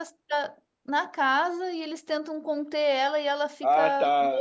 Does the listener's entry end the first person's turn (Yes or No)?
Yes